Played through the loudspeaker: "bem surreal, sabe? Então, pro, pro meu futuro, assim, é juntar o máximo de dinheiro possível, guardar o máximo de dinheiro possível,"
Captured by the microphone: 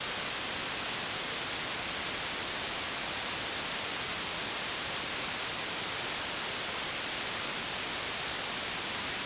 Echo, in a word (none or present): none